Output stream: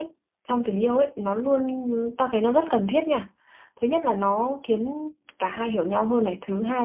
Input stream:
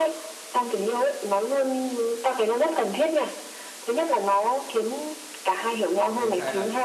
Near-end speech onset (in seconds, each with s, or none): 5.8 s